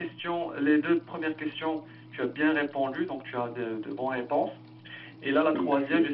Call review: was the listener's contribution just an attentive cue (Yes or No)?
Yes